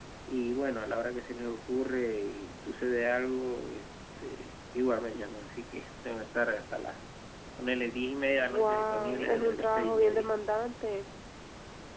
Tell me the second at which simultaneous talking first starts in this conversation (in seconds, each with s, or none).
8.4 s